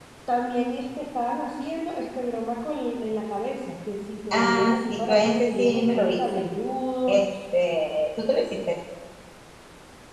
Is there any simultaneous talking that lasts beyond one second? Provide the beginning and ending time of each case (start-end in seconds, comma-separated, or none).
4.3-6.4